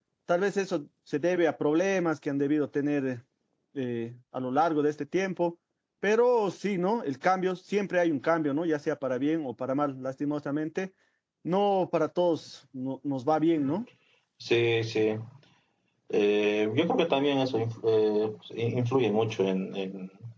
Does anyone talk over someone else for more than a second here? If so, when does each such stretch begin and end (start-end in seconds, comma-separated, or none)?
none